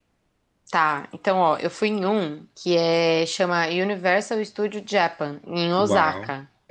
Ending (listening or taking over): taking over